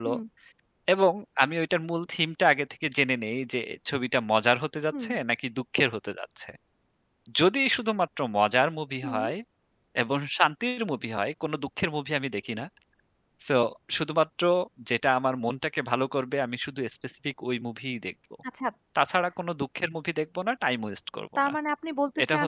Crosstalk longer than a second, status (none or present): none